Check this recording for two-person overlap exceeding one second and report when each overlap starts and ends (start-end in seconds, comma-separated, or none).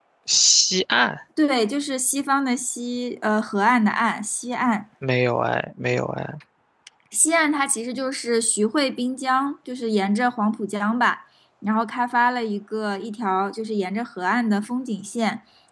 none